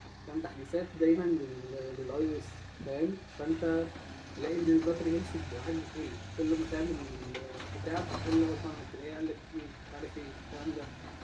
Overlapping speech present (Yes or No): No